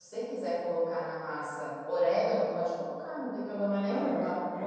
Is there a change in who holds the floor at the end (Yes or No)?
Yes